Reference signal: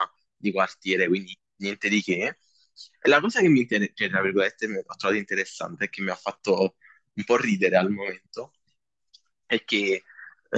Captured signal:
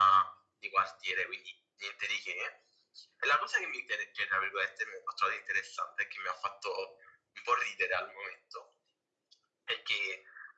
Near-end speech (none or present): none